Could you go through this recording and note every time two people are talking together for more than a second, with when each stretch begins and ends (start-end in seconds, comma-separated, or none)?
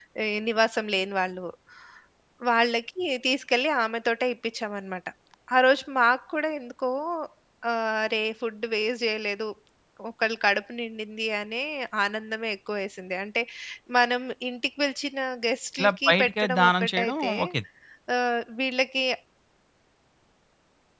15.8-17.3